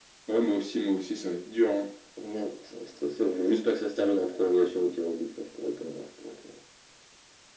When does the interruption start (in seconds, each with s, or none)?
none